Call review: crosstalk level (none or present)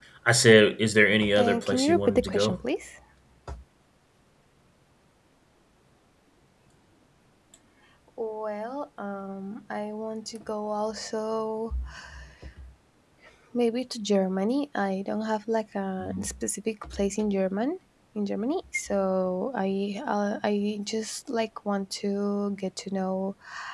present